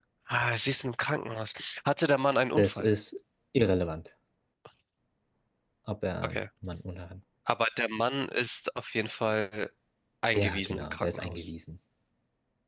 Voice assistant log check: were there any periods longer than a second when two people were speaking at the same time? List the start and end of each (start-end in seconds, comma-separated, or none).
10.3-11.5